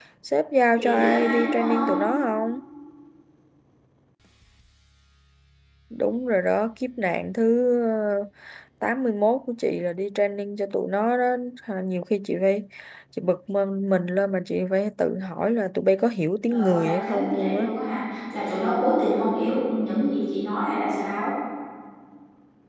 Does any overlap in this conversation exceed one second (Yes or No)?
Yes